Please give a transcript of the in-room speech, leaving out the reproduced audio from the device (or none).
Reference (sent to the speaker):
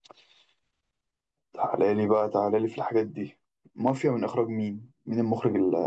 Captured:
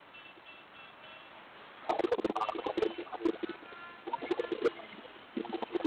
none